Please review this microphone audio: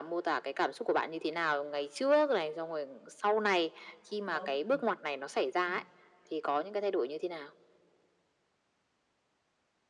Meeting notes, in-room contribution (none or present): present